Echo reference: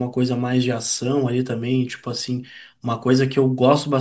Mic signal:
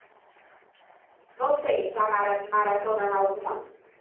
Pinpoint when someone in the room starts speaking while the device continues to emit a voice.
1.3 s

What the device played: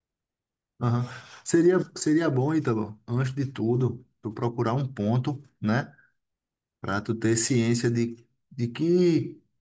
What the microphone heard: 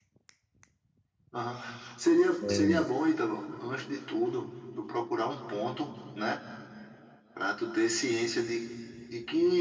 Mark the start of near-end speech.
2.4 s

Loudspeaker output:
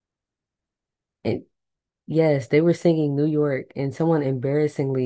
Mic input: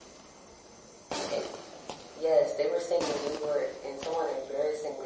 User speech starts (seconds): none

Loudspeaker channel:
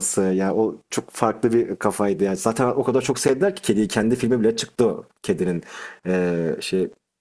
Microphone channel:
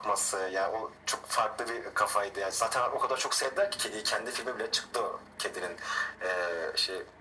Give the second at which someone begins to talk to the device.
none

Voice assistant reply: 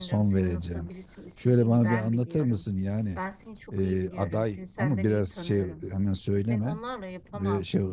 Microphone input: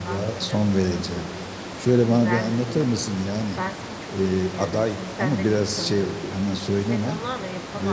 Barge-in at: none

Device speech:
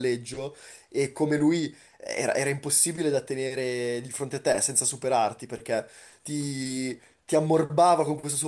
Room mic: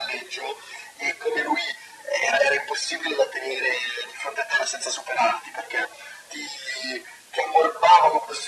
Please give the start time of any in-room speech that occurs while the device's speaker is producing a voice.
none

